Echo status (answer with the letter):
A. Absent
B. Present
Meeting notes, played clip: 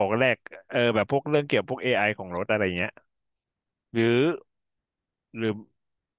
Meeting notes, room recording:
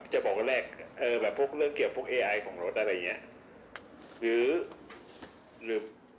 B